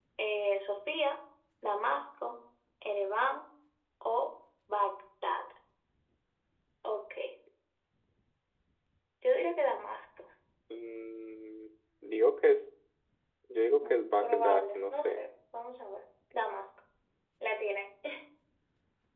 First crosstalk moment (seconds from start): 13.8 s

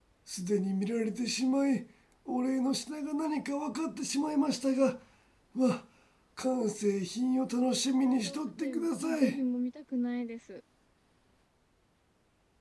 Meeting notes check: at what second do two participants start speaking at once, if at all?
8.0 s

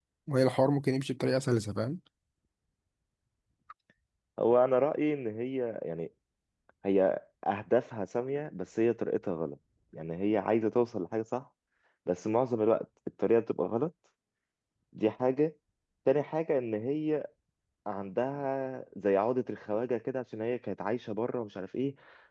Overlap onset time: none

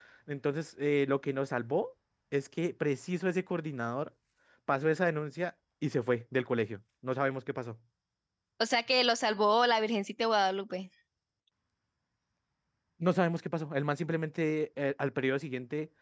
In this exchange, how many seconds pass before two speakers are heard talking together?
none

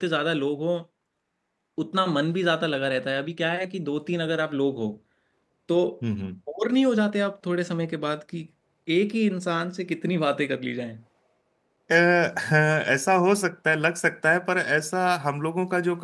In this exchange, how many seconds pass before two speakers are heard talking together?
none

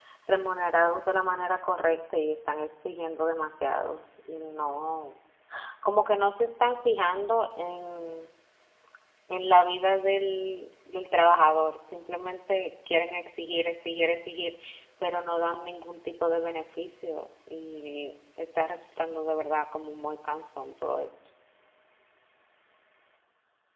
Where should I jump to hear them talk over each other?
none

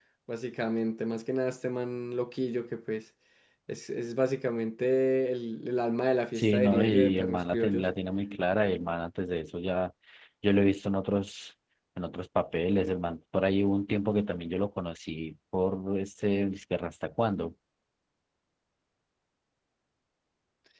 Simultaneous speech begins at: 6.3 s

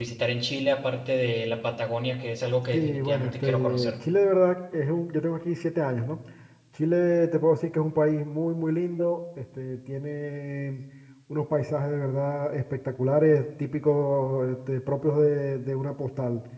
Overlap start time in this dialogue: 2.7 s

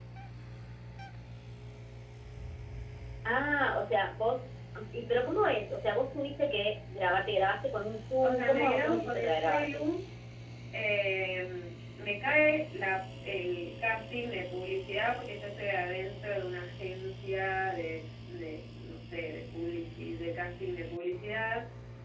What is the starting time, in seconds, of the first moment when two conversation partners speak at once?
8.2 s

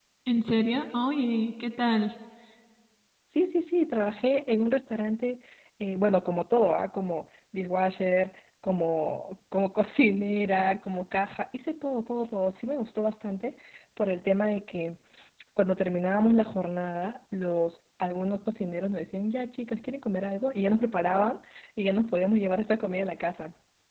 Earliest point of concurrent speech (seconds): none

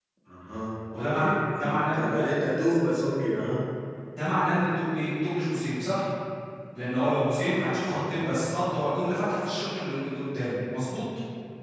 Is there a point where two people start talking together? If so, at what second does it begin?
0.9 s

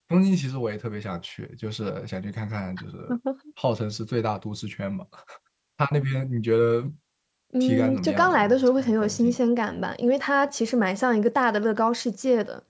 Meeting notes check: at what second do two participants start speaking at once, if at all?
7.6 s

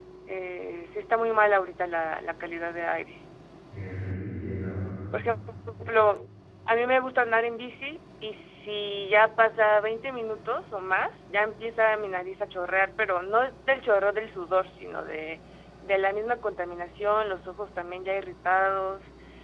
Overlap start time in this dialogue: none

